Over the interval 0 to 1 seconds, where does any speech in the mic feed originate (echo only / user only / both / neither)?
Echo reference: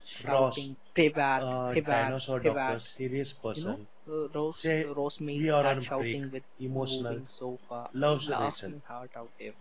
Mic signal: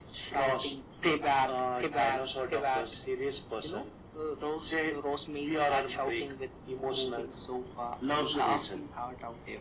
echo only